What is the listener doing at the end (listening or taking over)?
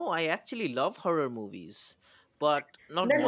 taking over